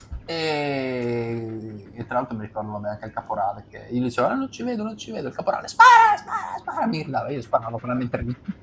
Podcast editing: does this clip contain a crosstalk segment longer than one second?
No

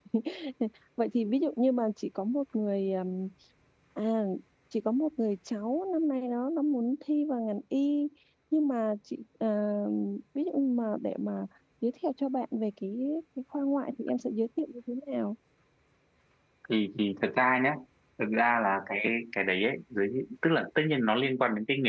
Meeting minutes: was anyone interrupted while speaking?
No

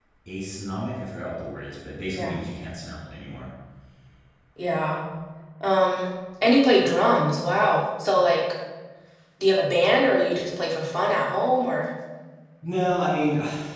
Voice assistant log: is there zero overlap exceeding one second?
Yes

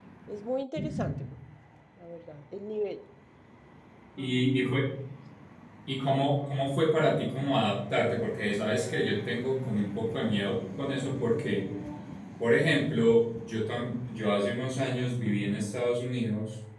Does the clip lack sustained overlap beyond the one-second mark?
Yes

